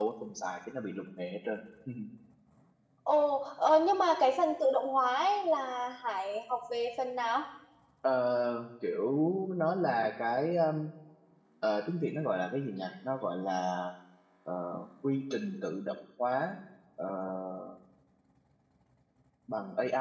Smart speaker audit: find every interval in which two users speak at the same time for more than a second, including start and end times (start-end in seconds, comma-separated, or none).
none